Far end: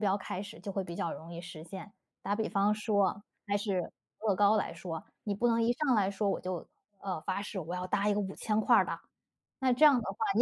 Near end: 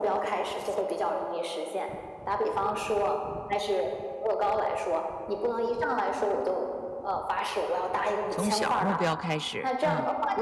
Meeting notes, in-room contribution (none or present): present